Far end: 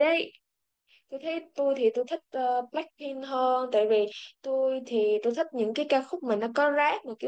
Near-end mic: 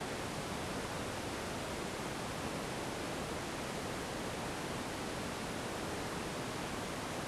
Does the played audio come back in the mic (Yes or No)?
No